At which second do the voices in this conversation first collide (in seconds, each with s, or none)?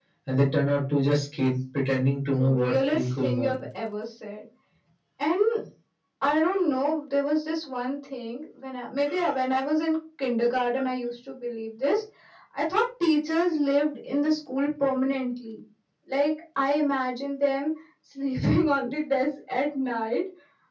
2.3 s